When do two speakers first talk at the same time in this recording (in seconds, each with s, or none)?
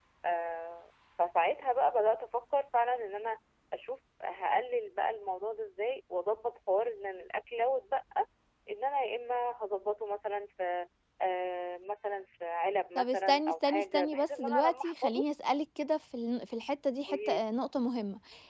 13.0 s